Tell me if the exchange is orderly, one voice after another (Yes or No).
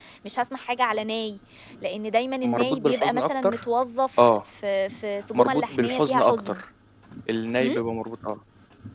No